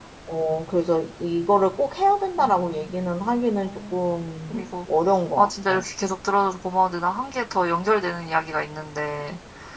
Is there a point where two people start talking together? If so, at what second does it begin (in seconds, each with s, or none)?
2.4 s